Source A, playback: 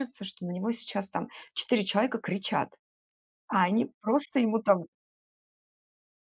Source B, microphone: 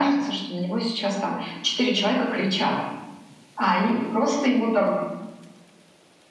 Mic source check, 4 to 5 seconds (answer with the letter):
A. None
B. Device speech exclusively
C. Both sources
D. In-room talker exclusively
B